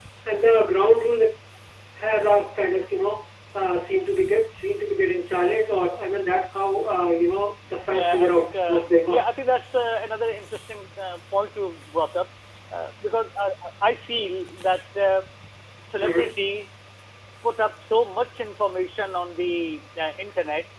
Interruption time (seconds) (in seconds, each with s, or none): 7.9 s